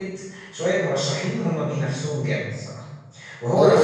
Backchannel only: No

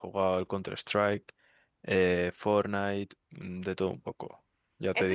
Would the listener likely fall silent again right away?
No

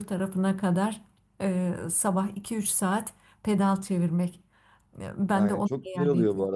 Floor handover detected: Yes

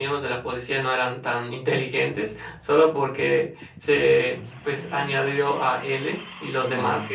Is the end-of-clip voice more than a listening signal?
No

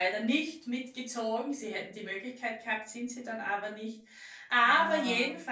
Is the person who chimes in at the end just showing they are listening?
Yes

